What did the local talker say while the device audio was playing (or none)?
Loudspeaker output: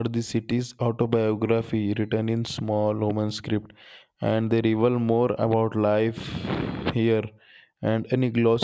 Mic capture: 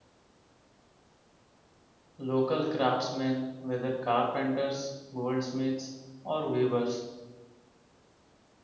Local craftsmen, whether carpenters, goldsmiths, or weavers,